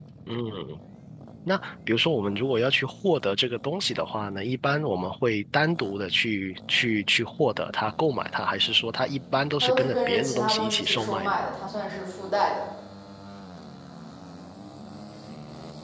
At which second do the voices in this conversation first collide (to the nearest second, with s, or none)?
10 s